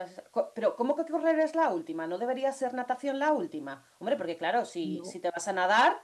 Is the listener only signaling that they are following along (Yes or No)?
Yes